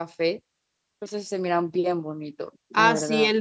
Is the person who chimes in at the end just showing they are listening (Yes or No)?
No